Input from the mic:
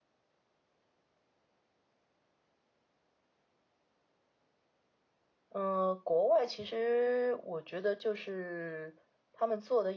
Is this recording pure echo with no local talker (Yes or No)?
No